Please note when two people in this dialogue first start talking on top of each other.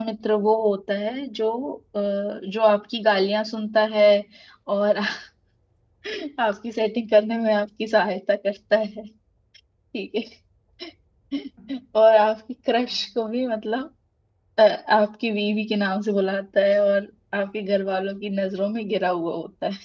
none

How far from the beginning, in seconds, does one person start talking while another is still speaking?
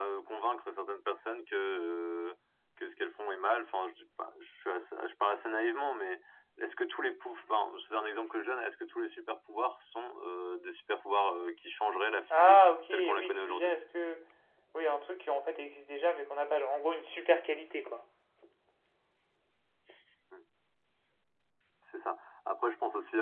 12 s

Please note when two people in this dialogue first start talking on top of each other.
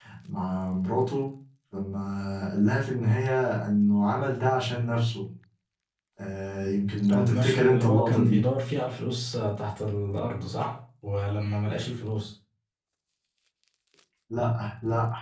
7 s

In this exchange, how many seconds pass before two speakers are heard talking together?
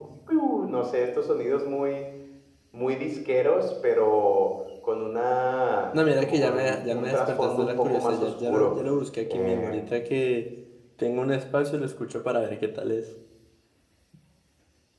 6 s

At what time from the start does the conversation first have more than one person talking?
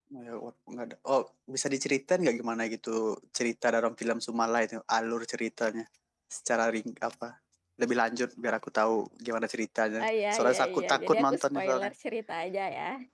10 s

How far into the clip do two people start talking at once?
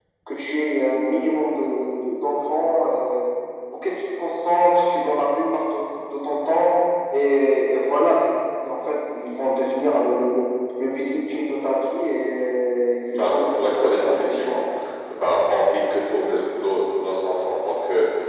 13 s

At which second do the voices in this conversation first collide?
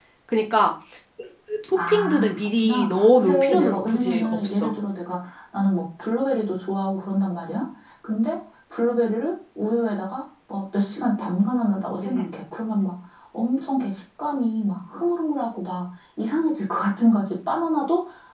2 s

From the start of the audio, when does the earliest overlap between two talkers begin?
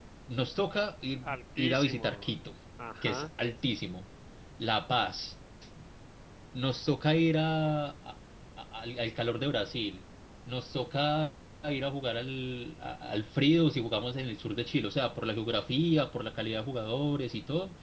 1 s

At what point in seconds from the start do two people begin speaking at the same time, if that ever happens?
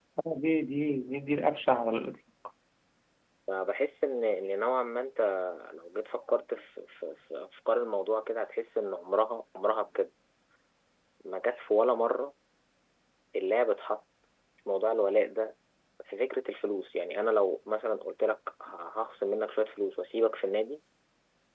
none

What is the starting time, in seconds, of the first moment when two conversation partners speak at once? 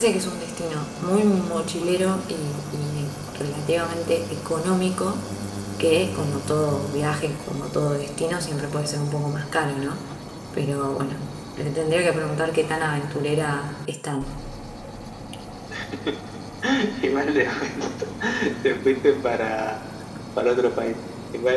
none

